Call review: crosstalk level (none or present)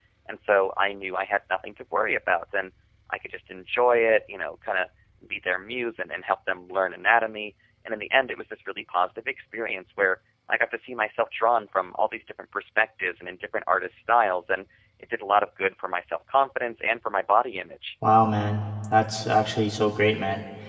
none